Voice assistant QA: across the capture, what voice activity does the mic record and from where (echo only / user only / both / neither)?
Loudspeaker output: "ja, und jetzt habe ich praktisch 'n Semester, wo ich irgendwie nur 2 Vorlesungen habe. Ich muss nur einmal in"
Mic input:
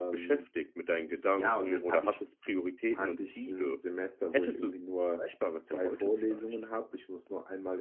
both